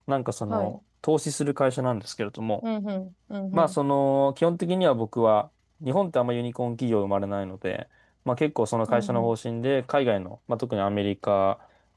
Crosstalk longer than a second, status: none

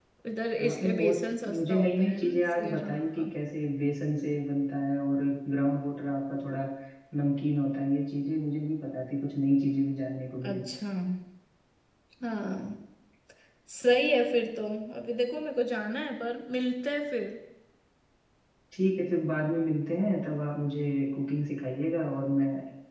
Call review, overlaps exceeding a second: present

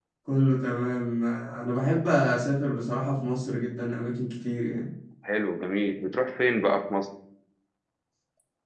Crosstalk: none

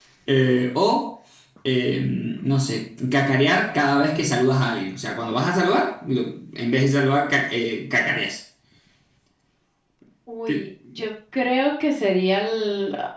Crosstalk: none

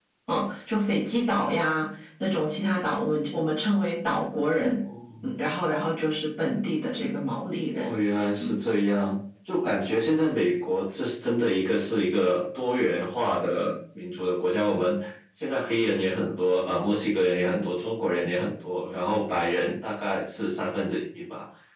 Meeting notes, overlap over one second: none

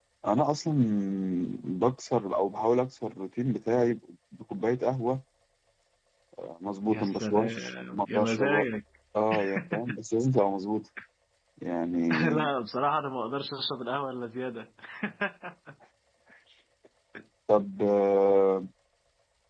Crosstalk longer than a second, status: present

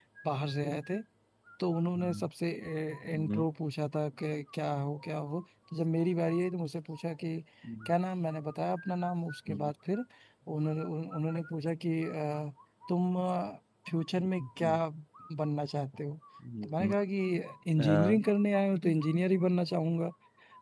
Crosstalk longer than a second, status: none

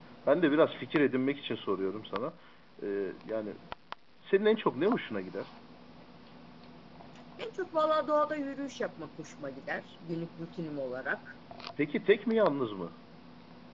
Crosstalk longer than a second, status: none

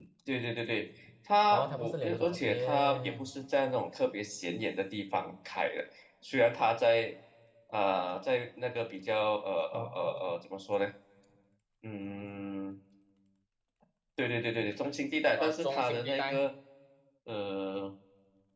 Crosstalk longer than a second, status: present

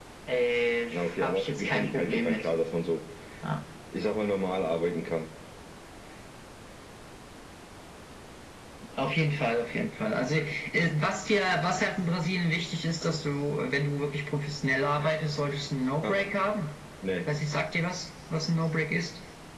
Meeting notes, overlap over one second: present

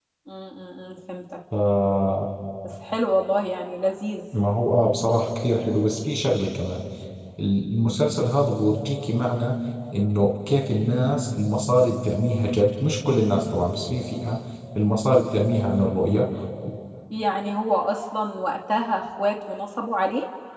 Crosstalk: none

